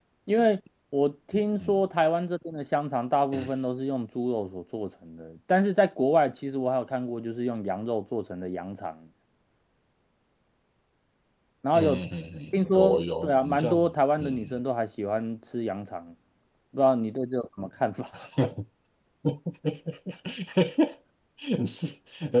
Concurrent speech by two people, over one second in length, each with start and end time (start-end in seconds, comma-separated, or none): 12.5-13.8